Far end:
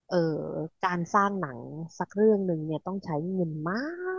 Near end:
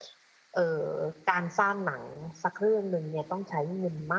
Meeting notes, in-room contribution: none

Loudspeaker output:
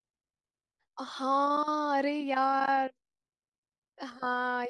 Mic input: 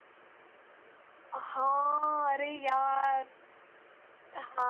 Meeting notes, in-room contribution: none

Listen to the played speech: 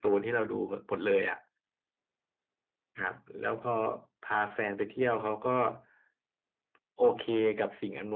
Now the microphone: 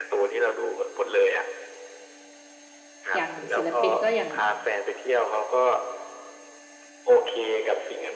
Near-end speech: present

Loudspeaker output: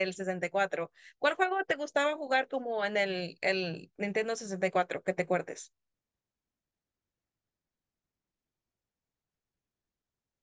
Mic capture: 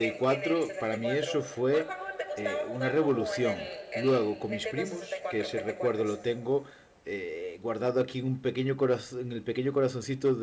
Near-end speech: present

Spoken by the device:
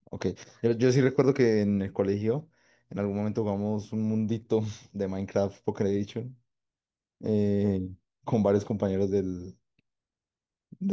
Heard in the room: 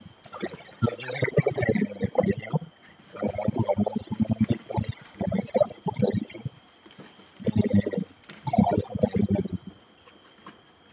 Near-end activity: none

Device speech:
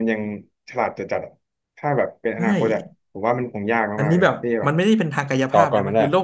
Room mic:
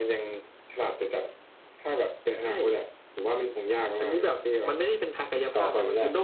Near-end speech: none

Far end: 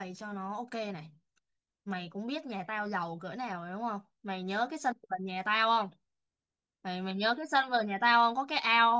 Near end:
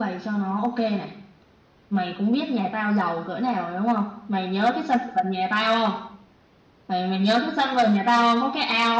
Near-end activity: none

